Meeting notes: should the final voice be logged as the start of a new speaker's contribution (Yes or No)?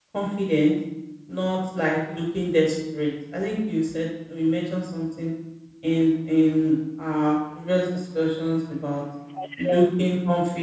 No